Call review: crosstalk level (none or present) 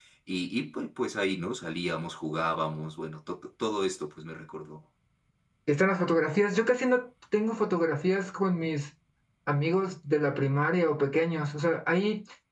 none